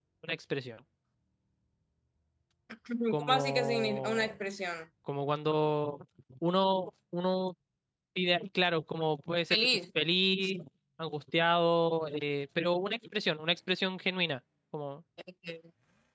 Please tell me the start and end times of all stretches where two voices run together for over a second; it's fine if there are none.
3.1-4.3

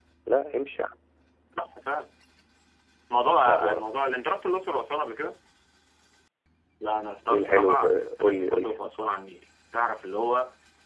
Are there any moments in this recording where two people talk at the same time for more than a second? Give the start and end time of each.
7.3-8.7

